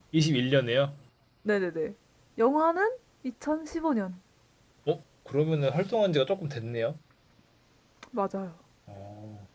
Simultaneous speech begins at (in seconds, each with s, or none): none